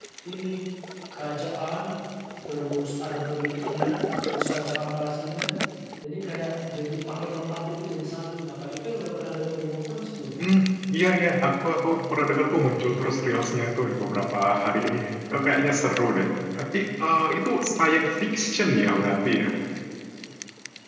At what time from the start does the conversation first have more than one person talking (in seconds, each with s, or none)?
none